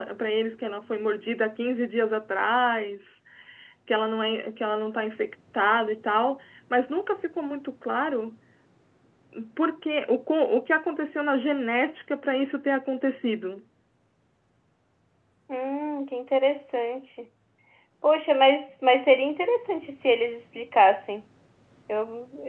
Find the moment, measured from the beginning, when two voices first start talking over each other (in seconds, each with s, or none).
none